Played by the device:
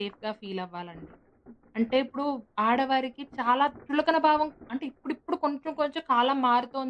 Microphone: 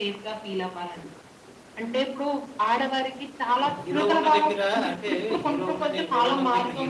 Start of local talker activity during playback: 3.6 s

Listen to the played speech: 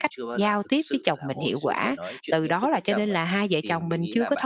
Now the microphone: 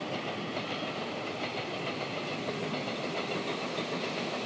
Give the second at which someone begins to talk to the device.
none

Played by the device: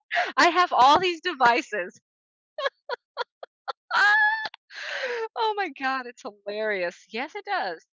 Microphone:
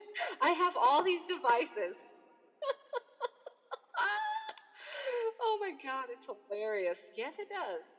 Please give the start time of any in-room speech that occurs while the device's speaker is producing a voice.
none

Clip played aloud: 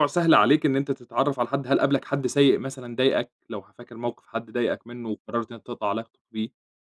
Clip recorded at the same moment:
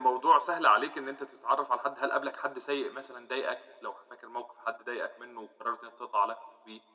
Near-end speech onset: none

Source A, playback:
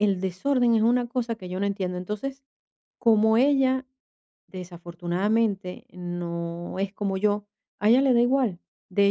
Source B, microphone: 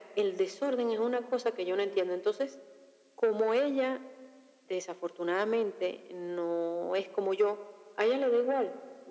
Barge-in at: none

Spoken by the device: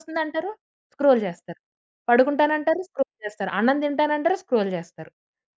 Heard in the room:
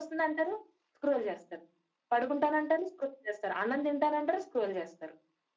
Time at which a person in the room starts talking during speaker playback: none

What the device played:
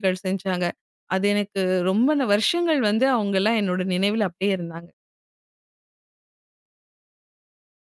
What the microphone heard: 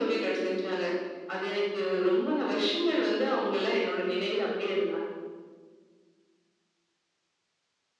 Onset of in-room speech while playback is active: none

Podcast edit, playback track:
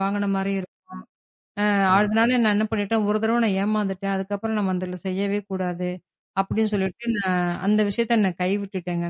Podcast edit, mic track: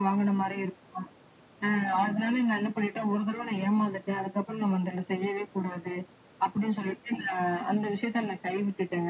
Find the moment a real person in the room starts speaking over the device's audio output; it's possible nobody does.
none

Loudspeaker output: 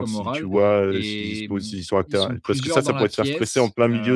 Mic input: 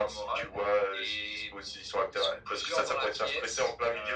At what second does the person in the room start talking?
none

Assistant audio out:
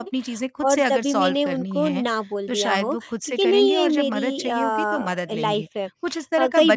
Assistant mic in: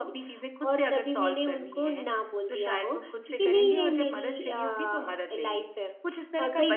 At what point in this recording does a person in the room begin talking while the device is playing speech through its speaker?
none

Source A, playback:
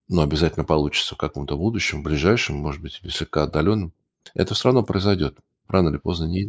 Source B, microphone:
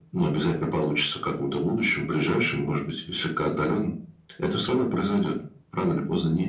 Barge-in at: none

